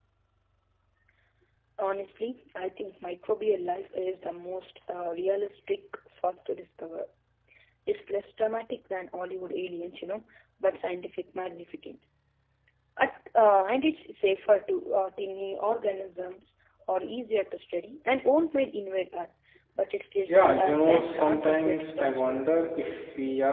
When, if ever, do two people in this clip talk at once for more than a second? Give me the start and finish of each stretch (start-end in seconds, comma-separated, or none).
20.3-22.4